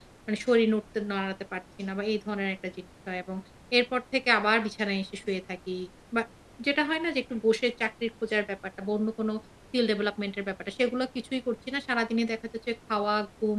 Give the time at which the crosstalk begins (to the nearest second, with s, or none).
none